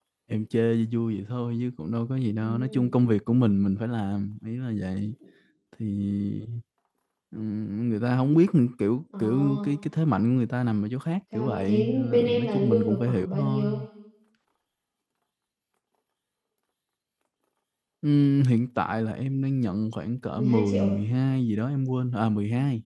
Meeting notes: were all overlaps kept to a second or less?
No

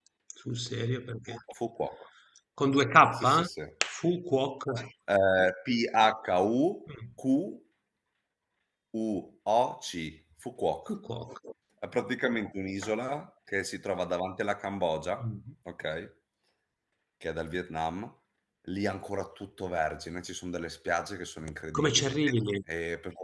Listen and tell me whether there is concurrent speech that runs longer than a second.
No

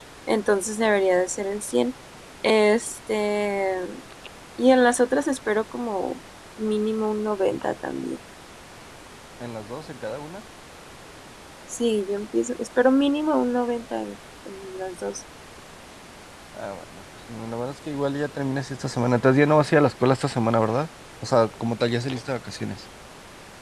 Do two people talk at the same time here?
No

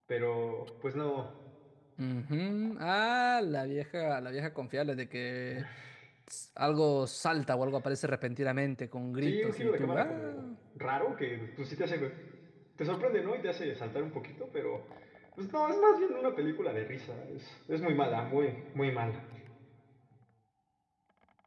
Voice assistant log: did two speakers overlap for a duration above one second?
Yes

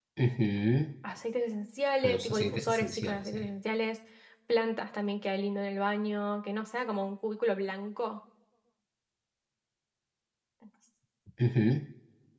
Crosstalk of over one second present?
Yes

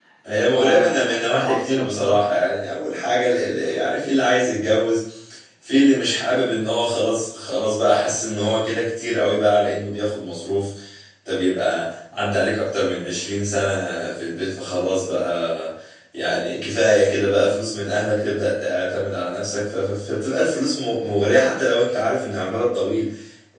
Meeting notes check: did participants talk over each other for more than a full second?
Yes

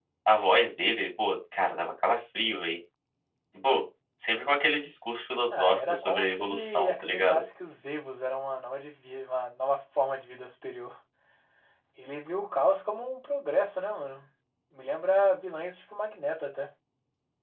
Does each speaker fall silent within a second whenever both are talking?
No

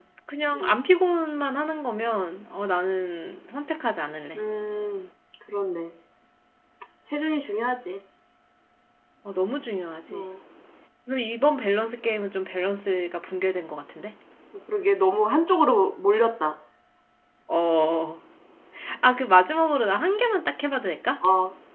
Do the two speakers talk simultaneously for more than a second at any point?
No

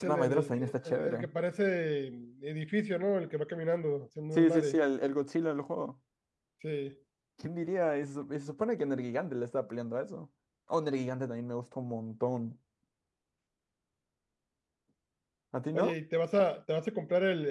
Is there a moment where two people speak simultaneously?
Yes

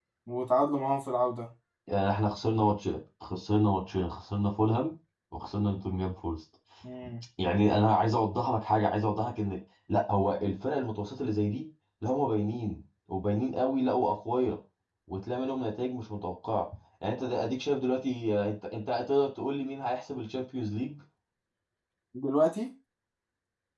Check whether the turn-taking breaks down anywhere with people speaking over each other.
No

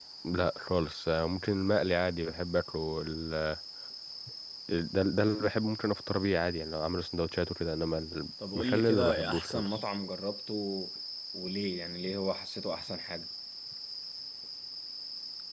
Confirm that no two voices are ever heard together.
No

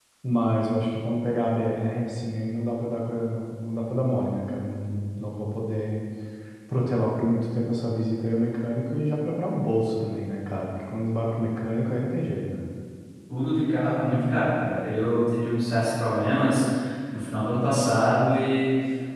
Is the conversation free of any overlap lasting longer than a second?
Yes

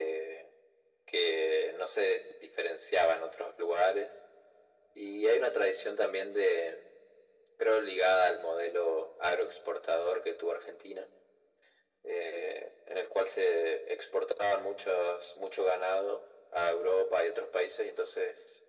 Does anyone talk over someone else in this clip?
No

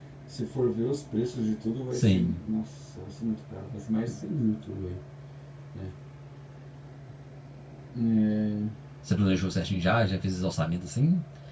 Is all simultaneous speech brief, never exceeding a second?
Yes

